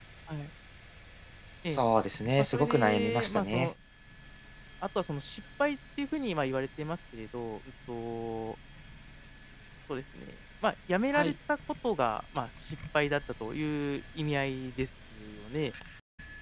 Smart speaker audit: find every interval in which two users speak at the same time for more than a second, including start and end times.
2.4-3.7

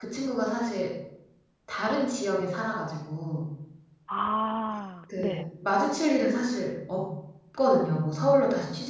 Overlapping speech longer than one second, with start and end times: none

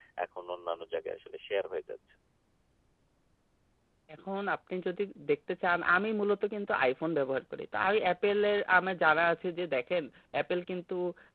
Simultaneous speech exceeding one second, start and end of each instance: none

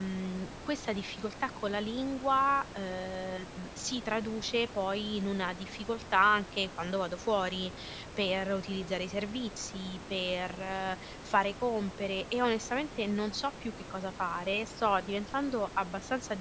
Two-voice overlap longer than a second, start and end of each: none

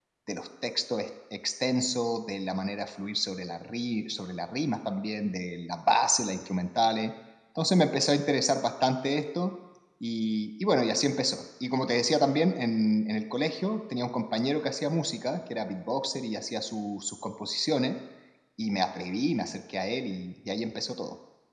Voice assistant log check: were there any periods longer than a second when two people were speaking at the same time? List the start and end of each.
none

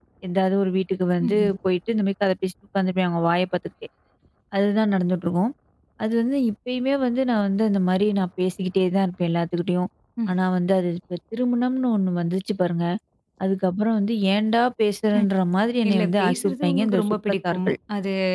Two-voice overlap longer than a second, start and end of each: 15.9-17.8

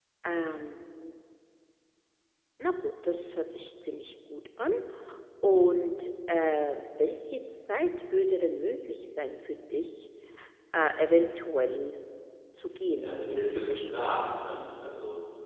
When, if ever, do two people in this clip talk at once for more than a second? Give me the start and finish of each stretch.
13.0-14.2

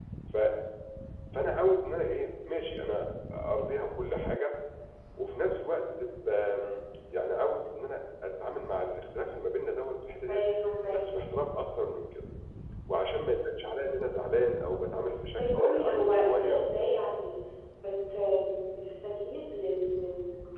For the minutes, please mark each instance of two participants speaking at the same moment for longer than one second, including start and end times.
15.3-16.9

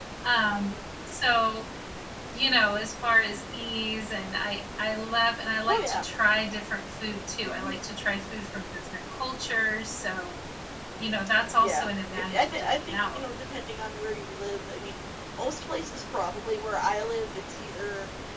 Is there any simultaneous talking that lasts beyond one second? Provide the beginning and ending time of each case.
11.6-13.2

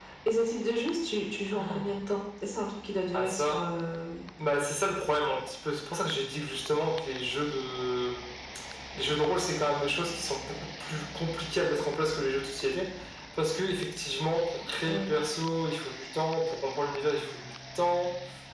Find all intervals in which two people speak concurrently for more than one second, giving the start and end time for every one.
none

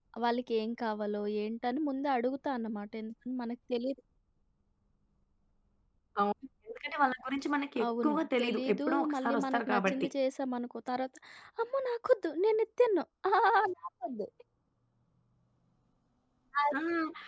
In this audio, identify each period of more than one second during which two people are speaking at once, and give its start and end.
7.8-10.1

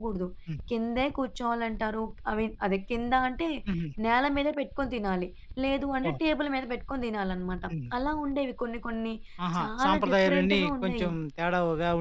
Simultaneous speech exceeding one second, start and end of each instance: 9.6-11.1

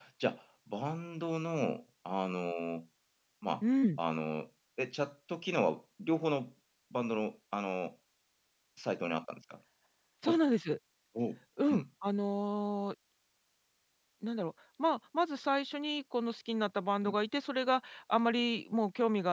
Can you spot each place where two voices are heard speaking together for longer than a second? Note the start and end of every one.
none

